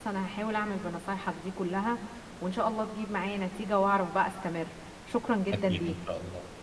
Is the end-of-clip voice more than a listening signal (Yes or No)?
Yes